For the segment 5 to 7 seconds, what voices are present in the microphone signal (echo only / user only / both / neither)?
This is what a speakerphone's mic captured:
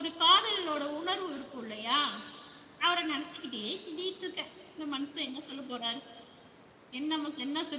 echo only